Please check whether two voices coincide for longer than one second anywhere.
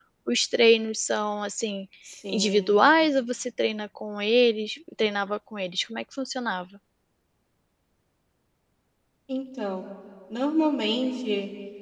No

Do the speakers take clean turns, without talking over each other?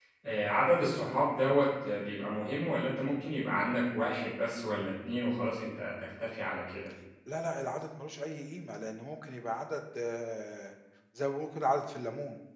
Yes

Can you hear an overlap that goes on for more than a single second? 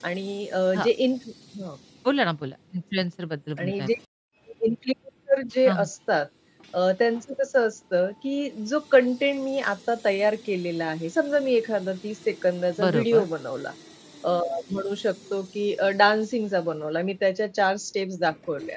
No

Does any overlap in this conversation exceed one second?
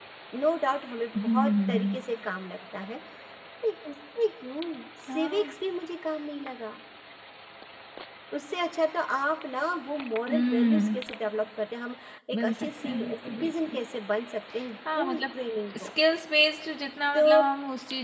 Yes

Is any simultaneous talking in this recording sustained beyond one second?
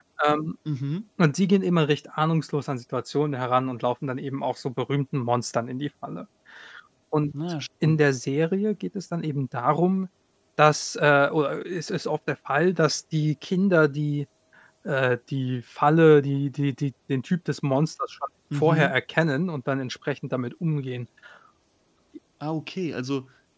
No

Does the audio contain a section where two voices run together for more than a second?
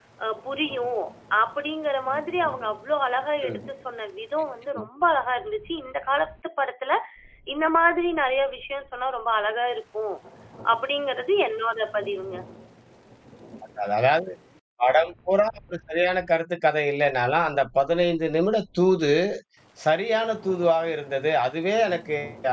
No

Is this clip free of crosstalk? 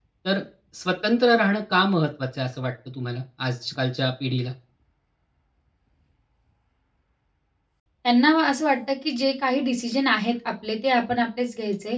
Yes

